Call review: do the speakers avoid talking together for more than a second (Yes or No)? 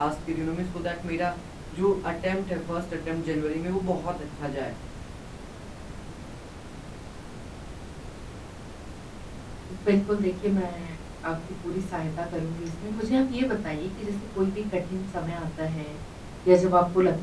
Yes